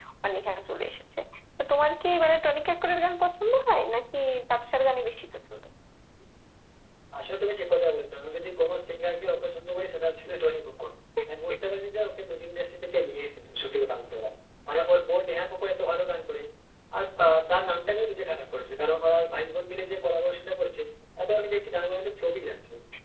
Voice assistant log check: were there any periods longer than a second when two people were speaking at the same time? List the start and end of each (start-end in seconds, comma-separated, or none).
none